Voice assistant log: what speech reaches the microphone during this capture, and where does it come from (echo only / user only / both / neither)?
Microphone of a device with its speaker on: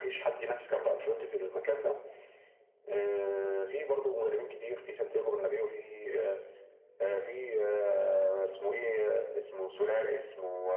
echo only